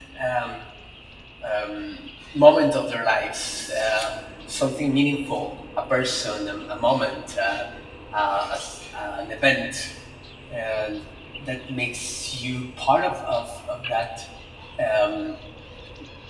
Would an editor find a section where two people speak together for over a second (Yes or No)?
No